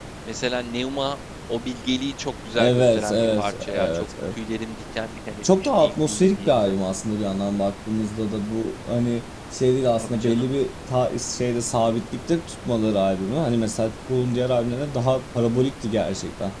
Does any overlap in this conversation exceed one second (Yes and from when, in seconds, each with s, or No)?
Yes, from 2.5 s